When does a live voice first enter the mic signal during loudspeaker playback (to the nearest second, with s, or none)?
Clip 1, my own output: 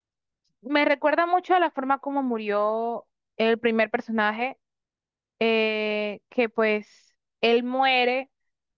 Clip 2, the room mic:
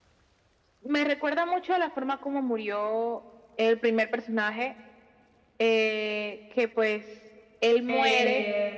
8 s